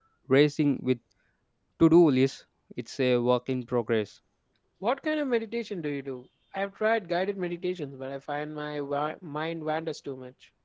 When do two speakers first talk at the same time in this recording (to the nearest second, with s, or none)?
none